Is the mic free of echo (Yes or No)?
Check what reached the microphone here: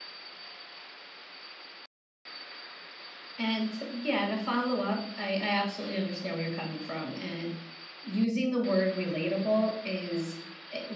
Yes